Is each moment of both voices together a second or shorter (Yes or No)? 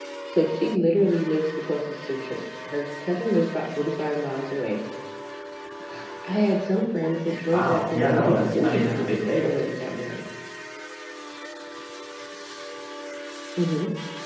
No